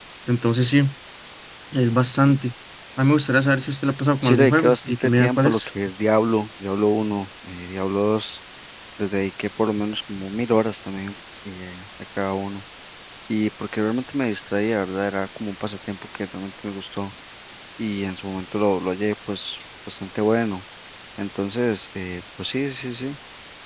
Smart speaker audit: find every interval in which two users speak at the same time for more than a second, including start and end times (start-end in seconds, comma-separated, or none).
4.2-5.7